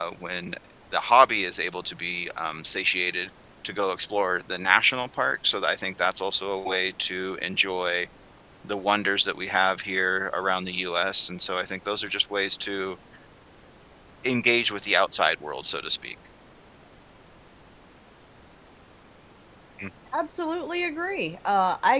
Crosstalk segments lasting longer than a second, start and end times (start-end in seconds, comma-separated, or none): none